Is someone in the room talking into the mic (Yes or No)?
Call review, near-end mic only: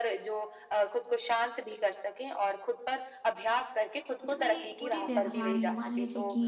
Yes